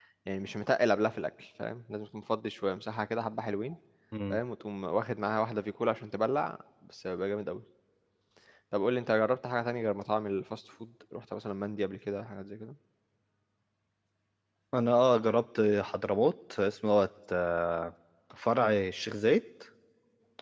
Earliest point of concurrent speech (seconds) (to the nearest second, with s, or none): none